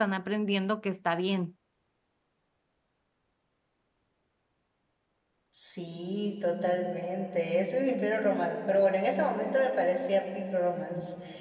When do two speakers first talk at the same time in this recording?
none

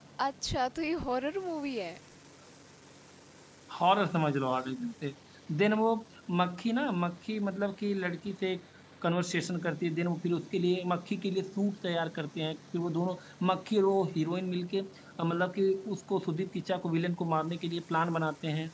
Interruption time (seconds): none

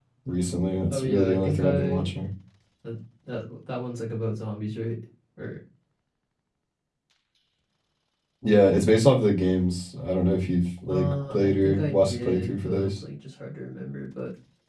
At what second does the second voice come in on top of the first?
0.9 s

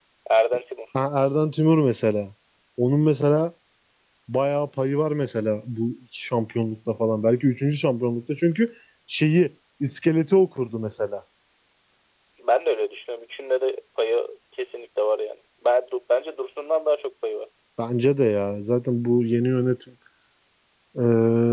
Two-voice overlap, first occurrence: none

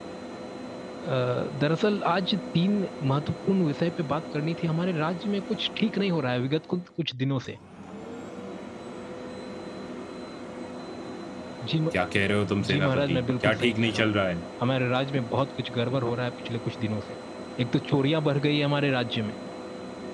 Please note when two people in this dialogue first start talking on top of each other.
12.7 s

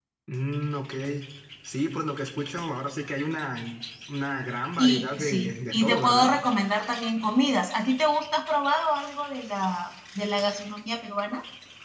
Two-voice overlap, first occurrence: 4.8 s

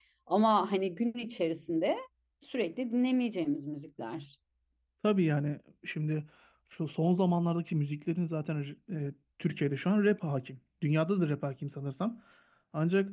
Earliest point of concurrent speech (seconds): none

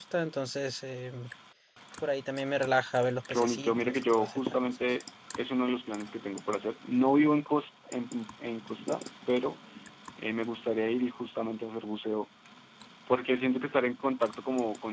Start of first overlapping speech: 3.3 s

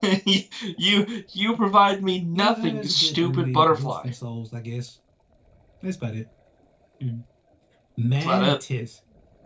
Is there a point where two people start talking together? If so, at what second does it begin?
2.4 s

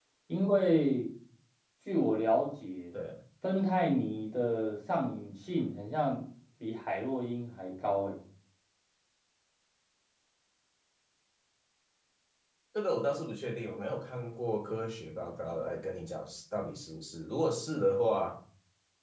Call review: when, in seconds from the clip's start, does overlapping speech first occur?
none

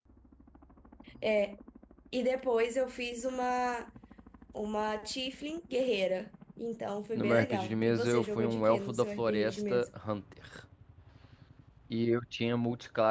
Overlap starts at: 7.2 s

